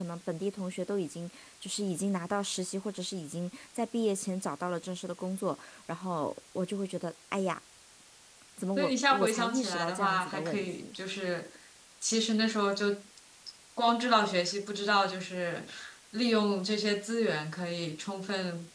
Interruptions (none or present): present